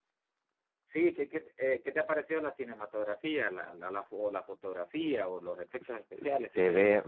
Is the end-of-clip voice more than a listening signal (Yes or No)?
Yes